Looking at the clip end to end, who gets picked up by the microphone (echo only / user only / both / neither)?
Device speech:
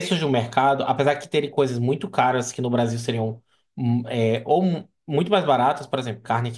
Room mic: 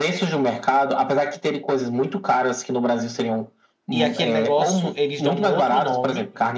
both